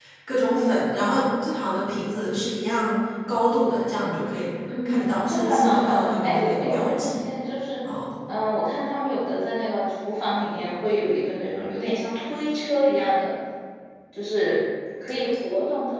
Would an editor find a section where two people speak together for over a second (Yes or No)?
Yes